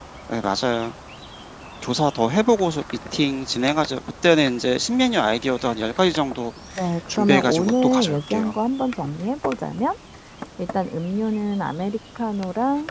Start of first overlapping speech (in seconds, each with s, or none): 7.1 s